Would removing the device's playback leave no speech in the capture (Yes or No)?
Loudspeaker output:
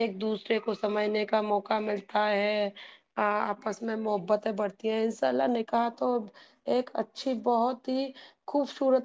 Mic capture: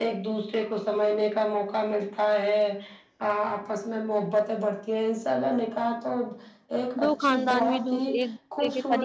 No